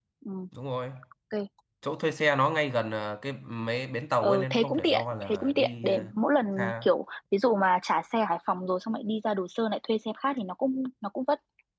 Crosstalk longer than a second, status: present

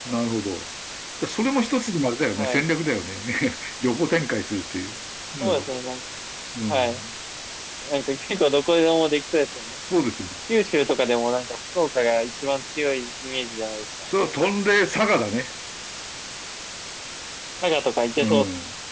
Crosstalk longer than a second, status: none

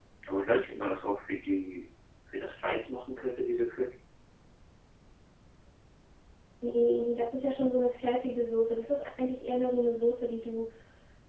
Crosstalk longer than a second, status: none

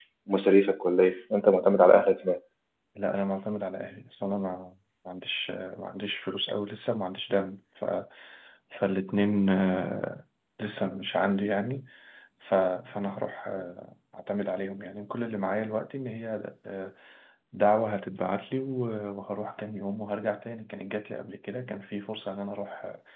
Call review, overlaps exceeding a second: none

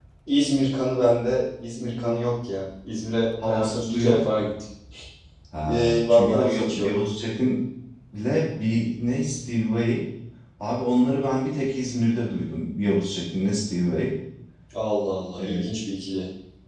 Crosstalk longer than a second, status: present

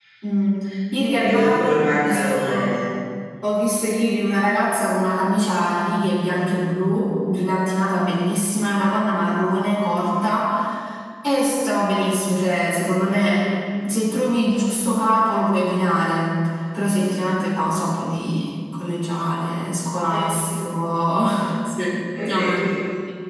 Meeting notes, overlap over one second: present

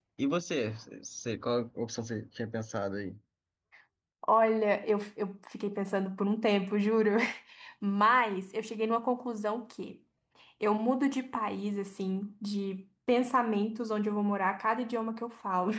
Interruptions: none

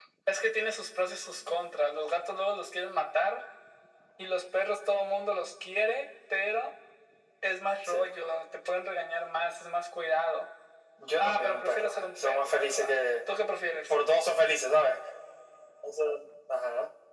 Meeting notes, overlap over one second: present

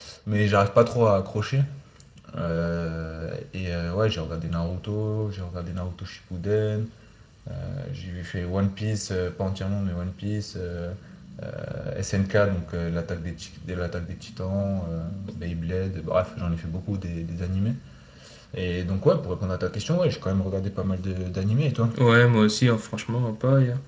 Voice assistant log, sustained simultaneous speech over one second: none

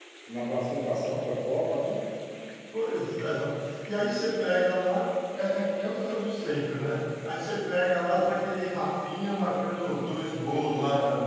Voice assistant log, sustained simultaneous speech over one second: none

